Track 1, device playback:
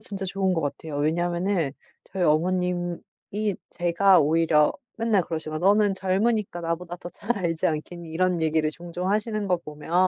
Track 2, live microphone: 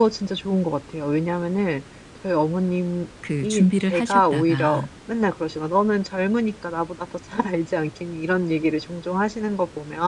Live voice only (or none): 그 준비를 하셨다가